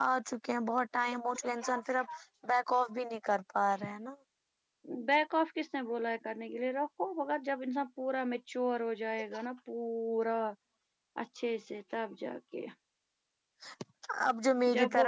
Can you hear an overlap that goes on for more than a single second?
No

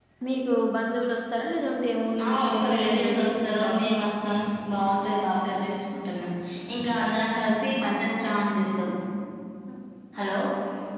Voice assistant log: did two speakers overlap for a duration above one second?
Yes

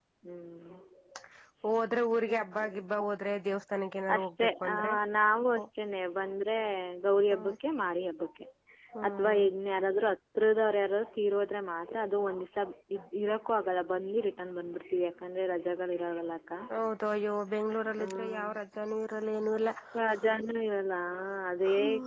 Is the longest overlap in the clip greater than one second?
No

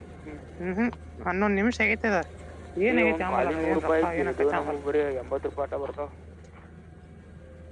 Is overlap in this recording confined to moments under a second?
No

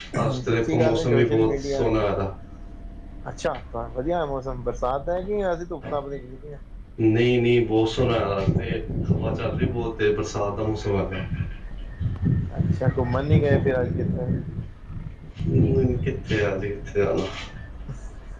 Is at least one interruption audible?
Yes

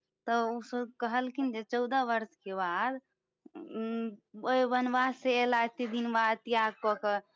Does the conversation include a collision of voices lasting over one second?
No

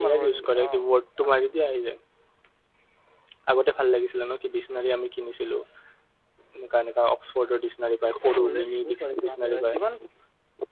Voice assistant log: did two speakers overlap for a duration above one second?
Yes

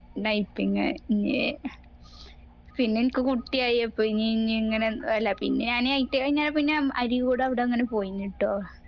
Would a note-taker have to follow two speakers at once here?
No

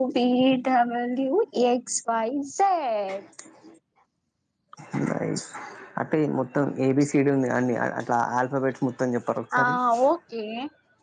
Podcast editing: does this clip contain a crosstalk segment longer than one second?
No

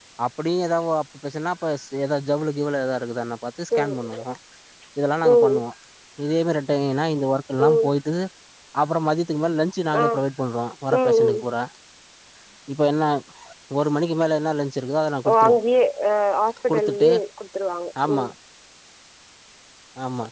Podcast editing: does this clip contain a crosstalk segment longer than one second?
No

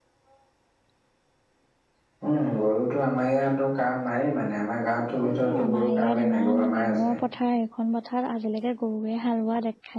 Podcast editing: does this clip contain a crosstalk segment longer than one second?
Yes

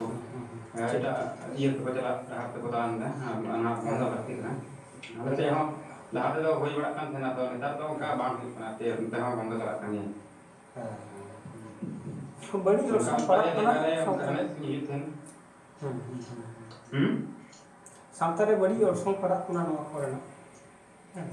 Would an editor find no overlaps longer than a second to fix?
No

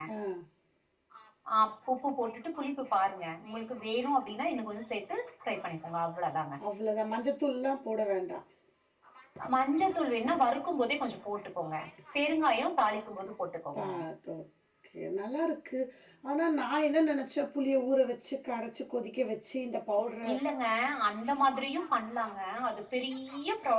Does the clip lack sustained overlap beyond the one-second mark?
Yes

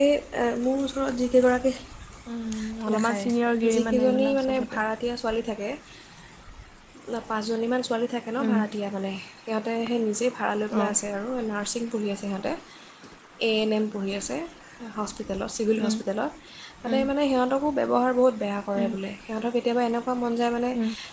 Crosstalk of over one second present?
Yes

